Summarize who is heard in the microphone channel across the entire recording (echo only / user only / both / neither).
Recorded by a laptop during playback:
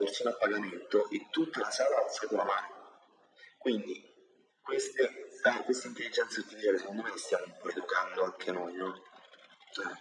echo only